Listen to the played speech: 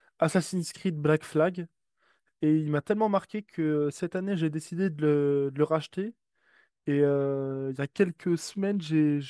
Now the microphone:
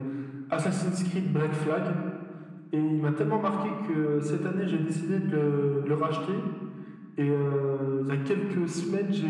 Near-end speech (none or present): none